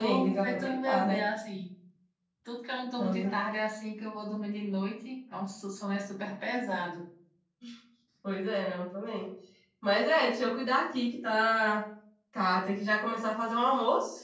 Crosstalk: present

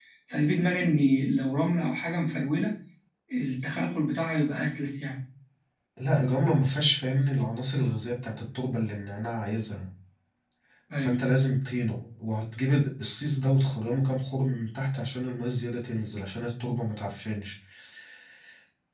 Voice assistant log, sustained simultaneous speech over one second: none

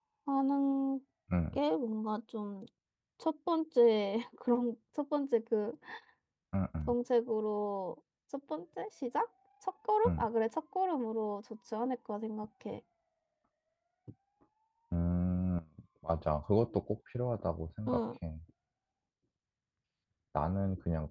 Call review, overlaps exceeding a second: none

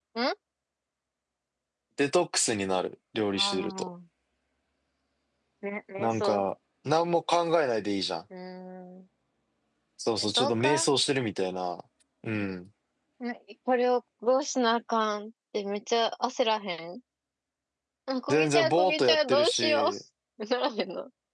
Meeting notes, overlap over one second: present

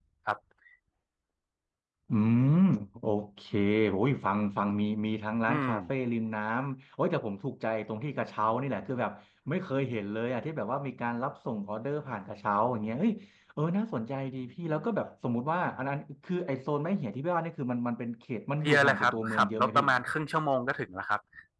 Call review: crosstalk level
present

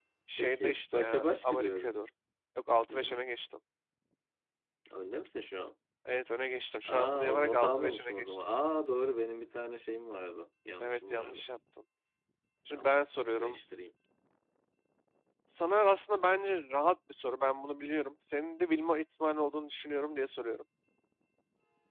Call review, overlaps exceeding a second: present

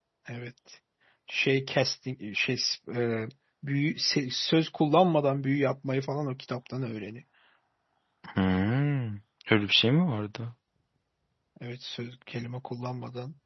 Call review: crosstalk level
none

